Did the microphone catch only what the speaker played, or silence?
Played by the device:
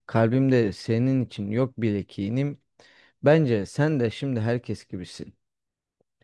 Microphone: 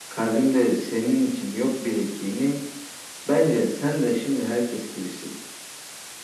Yes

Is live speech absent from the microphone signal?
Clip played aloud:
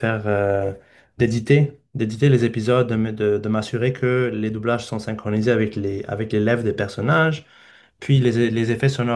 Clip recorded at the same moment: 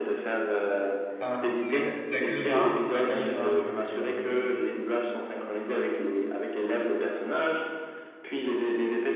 No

